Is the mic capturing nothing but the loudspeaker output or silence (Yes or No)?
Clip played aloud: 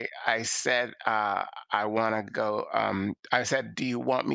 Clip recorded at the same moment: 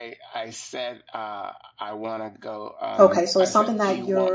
No